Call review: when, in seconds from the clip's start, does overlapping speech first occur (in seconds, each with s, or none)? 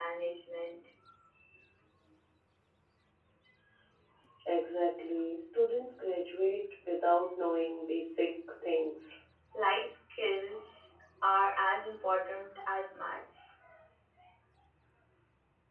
none